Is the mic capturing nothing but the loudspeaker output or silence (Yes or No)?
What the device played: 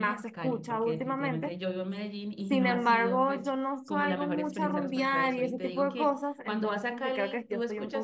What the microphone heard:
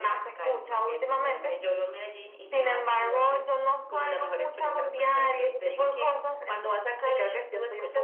Yes